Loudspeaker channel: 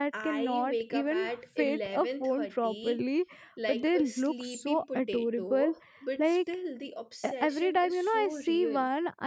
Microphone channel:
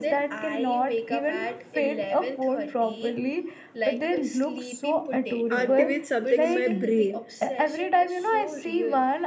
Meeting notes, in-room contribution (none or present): present